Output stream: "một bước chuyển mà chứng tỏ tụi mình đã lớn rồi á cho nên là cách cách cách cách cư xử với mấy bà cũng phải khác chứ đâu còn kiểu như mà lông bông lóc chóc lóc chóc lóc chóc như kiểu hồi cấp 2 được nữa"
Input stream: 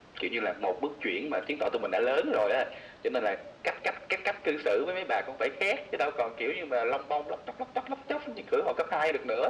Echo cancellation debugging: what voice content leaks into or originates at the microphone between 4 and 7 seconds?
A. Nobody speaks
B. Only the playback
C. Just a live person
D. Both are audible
B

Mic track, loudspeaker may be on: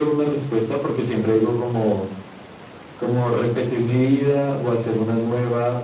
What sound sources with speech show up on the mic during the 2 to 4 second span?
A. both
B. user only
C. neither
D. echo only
D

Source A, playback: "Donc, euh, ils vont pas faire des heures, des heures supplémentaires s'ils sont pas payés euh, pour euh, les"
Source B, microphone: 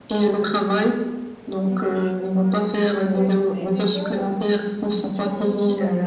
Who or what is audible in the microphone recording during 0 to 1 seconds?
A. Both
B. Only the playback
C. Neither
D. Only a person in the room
B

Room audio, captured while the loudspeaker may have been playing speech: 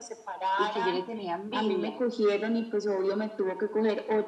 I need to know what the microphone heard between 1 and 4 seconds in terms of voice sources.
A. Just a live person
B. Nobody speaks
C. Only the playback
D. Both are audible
D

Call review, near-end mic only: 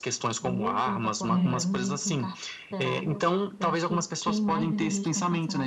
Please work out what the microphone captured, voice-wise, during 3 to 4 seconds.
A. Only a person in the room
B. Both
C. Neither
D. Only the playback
D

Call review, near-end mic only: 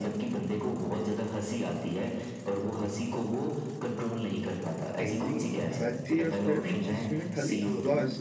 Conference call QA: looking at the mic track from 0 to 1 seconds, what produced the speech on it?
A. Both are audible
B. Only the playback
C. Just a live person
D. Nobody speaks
B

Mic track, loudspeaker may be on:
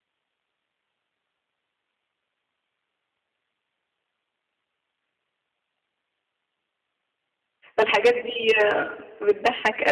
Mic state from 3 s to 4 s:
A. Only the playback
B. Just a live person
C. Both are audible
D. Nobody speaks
D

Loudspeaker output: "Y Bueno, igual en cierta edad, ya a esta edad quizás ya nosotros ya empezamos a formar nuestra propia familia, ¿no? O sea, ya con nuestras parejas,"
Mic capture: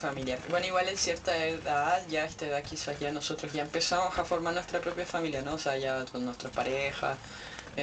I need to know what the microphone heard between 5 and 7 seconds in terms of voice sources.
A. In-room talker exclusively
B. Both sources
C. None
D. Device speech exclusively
D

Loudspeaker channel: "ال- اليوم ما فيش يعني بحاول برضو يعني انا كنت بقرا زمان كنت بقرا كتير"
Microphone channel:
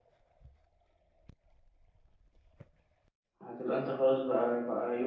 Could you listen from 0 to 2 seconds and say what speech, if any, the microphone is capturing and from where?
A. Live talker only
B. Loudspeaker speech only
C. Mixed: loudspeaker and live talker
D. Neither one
D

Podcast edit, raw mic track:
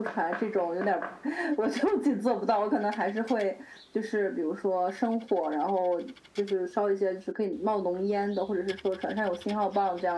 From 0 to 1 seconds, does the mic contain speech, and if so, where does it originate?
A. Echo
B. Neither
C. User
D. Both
A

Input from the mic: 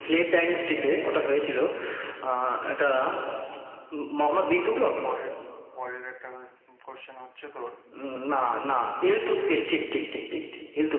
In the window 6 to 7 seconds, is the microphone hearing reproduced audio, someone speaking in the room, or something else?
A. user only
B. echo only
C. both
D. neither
A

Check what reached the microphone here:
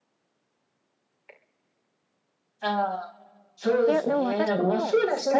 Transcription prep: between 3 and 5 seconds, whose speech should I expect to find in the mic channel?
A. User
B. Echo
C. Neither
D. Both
D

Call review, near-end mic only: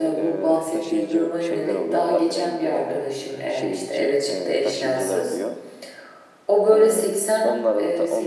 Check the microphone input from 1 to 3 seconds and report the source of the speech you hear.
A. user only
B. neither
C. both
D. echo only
C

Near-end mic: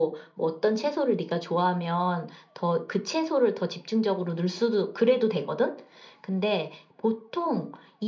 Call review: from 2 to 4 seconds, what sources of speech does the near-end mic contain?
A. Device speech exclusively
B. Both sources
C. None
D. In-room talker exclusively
A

